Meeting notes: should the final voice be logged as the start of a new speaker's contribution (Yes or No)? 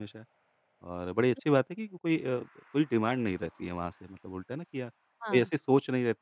No